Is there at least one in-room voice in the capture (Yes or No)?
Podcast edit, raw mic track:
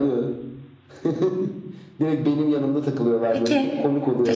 Yes